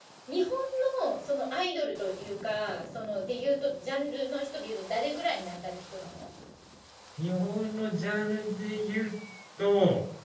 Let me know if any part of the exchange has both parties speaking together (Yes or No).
No